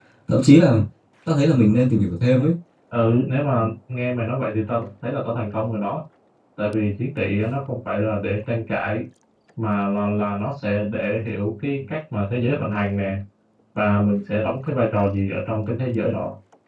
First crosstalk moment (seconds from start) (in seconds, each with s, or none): none